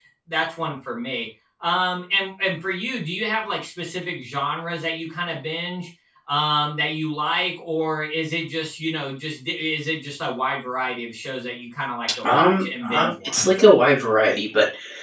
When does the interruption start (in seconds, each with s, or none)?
12.2 s